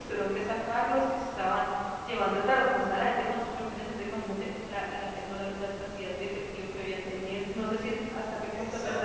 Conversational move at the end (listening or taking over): listening